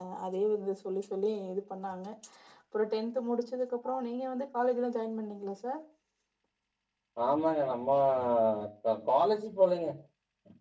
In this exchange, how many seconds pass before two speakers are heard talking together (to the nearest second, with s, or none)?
none